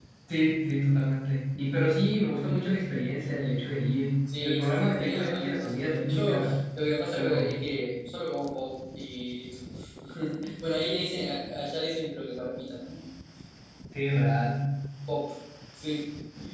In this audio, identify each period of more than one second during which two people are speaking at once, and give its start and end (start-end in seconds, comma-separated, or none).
4.3-6.4